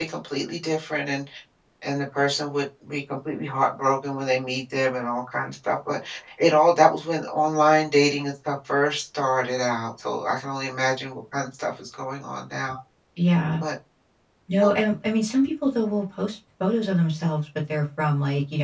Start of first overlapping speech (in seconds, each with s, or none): none